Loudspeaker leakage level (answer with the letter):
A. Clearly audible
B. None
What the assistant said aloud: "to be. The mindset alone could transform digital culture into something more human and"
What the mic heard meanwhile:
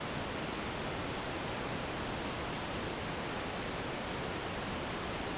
B